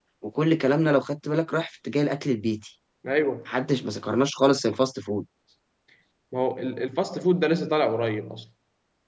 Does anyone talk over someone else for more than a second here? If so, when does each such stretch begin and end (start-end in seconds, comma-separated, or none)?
none